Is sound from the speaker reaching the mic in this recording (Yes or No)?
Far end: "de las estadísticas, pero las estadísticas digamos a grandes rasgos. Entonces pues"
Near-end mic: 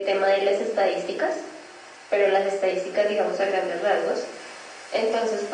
Yes